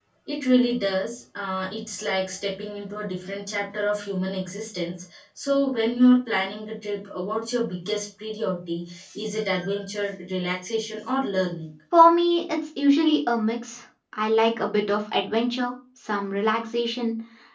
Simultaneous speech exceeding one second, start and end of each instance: none

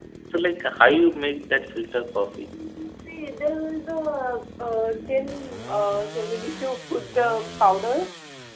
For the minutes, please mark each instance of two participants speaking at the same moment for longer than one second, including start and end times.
none

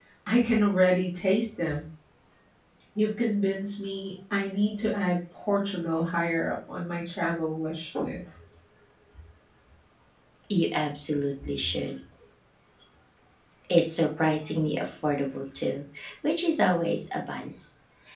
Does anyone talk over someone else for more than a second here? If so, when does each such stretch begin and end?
none

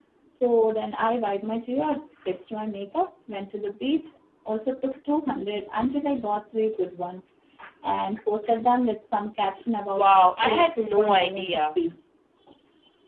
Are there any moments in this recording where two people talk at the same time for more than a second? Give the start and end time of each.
9.9-11.8

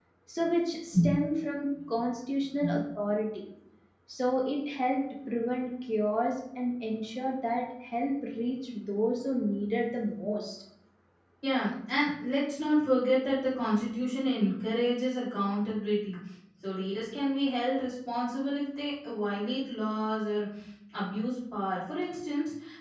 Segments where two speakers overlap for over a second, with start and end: none

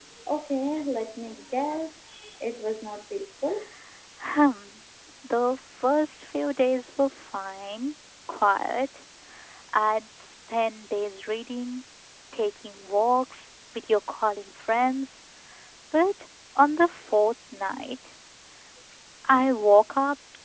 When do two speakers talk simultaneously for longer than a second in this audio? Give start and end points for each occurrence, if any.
none

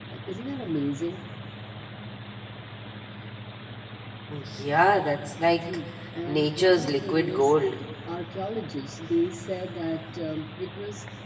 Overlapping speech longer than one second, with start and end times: 6.3-7.5

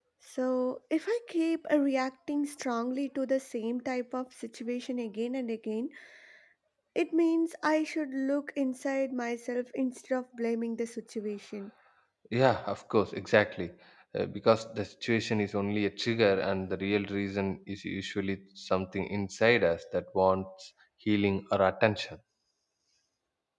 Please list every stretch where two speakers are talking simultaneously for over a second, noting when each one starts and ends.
none

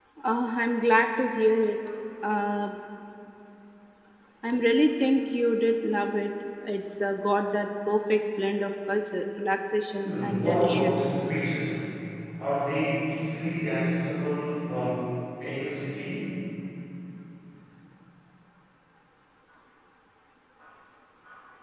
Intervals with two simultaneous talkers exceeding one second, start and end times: 10.0-11.3

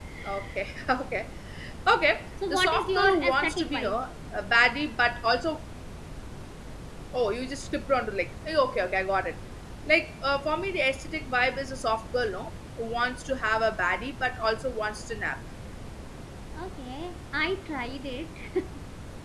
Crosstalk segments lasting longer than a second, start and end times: 2.5-4.0

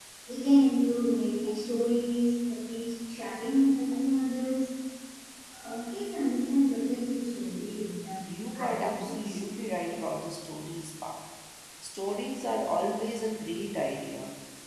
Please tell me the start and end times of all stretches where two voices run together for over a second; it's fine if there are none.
8.1-9.4

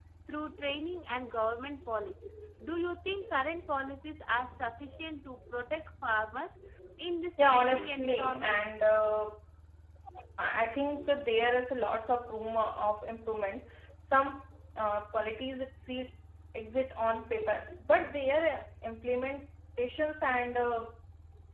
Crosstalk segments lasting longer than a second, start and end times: 7.4-8.6

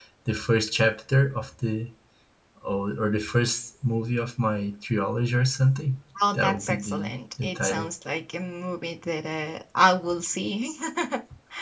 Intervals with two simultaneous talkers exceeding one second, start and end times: 6.3-7.9

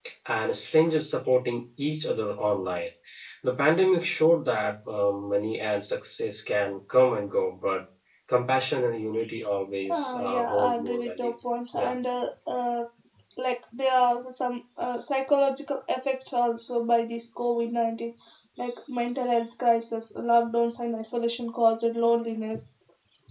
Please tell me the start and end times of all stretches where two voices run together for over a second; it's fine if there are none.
9.9-11.3

